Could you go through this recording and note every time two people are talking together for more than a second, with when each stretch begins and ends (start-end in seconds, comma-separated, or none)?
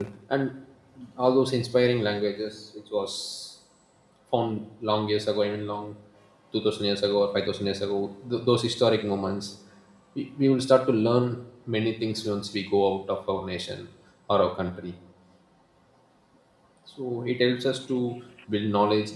none